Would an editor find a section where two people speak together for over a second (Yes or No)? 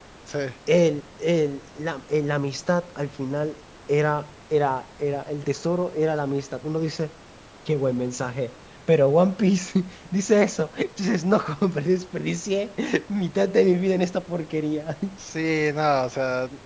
No